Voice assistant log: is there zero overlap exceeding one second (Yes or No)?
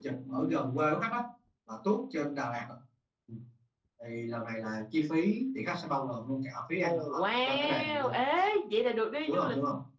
No